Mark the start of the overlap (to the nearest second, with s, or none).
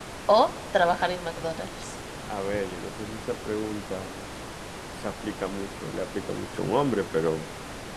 none